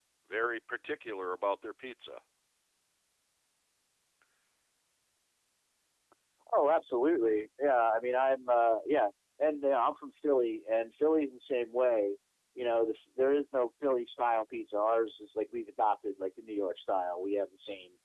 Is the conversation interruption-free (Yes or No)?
Yes